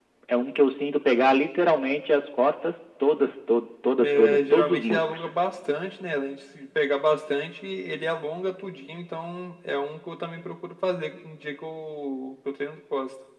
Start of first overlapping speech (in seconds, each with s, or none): 4.0 s